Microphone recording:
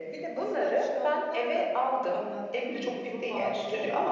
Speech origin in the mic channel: echo only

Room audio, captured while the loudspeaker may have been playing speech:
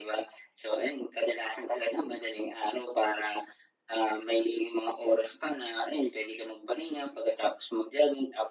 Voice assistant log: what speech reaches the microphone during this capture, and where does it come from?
echo only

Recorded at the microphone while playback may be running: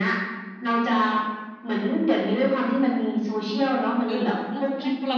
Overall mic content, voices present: both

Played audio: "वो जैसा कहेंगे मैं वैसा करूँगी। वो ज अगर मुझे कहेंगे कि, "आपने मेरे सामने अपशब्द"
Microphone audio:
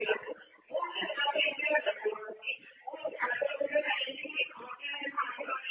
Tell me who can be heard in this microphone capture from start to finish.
echo only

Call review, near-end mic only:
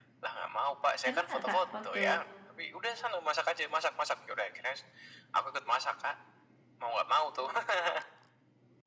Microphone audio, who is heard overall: both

